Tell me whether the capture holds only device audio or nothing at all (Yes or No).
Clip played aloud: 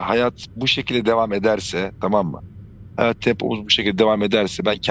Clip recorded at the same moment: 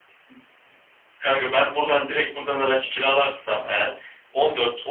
No